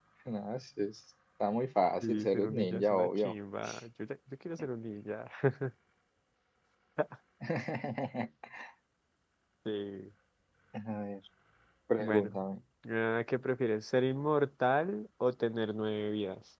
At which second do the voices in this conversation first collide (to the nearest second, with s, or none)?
2 s